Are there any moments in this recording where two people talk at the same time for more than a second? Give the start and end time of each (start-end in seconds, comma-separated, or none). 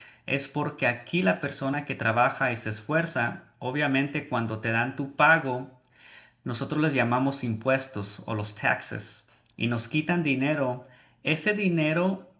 none